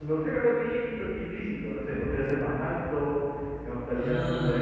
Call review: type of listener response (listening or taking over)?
listening